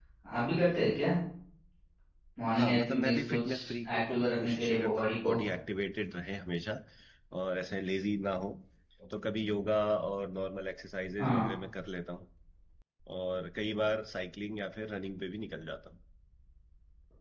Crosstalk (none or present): present